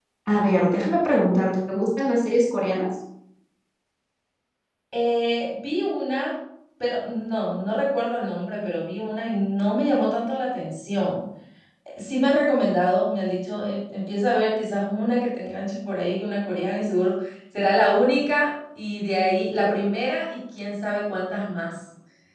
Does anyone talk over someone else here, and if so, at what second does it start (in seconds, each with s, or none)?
none